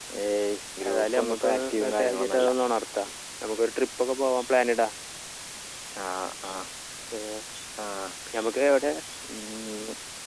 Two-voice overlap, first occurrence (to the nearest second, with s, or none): 1 s